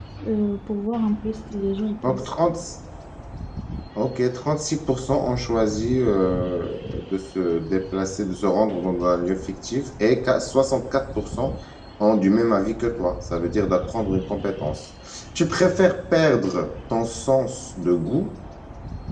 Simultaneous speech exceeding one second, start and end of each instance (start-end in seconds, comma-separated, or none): none